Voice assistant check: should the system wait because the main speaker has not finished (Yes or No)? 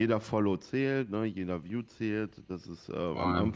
Yes